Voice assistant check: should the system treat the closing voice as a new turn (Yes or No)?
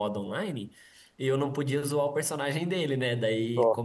No